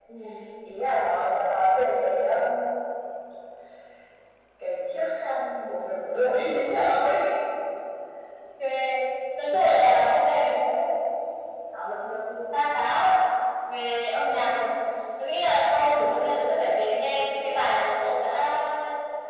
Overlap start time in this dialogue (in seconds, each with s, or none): none